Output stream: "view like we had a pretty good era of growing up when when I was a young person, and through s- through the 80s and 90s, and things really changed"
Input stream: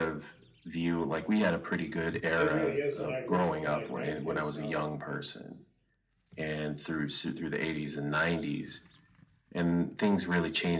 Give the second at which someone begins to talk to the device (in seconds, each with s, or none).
2.4 s